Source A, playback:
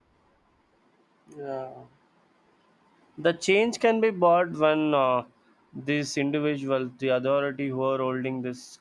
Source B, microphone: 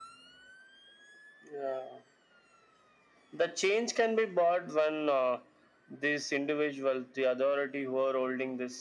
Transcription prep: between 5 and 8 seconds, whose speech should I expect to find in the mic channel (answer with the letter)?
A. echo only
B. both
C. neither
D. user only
A